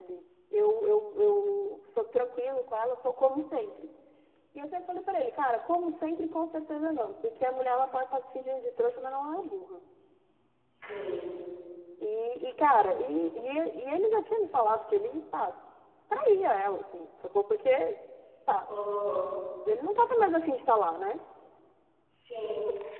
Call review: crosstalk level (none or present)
none